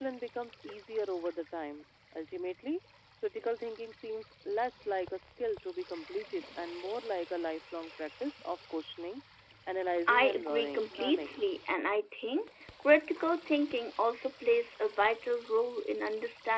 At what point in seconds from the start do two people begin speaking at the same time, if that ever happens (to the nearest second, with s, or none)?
10 s